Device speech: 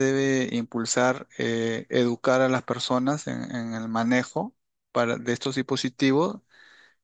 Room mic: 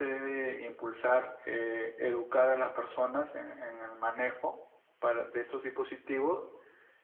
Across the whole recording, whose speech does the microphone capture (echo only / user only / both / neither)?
echo only